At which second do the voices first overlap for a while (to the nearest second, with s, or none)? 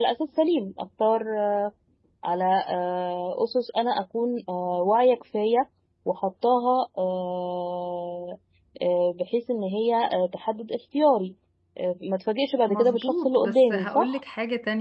13 s